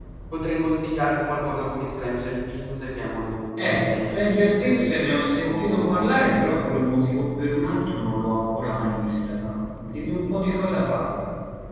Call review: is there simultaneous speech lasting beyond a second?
Yes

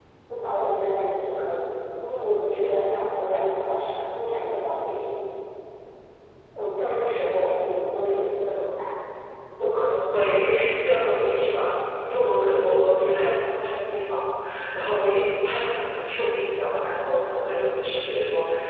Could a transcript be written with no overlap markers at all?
Yes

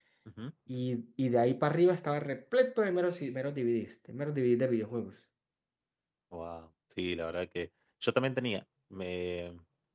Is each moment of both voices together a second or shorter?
Yes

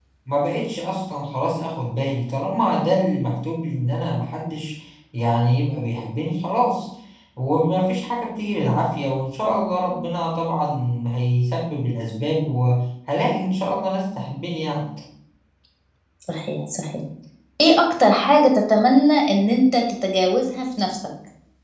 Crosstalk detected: No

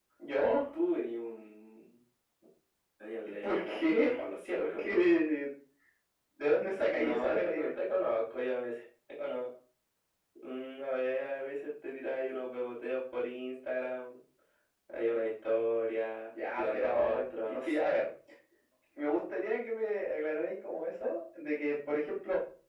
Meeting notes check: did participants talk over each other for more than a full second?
Yes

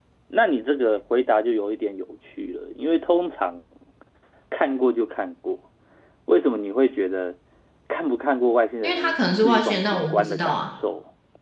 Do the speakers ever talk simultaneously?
Yes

